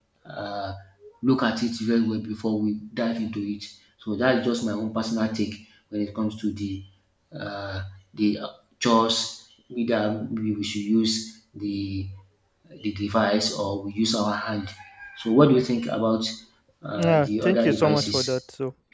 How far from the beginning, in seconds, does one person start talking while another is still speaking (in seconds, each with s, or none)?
17.0 s